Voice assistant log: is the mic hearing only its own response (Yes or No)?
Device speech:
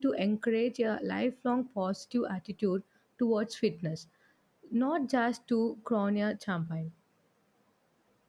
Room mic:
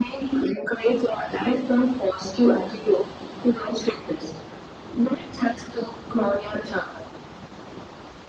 Yes